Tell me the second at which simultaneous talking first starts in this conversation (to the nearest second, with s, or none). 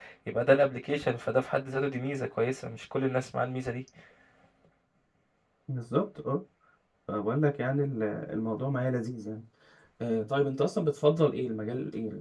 none